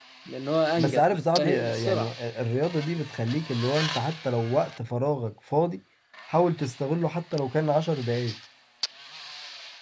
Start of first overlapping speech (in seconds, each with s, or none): 0.8 s